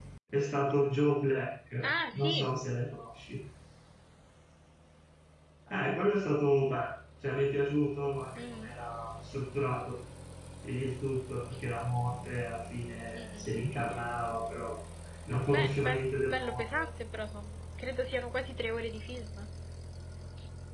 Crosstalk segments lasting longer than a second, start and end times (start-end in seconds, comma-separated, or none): 15.5-16.8